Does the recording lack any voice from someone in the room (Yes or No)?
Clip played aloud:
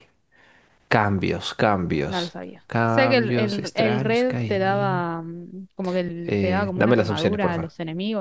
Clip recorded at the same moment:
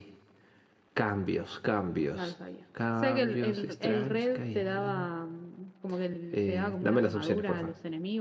Yes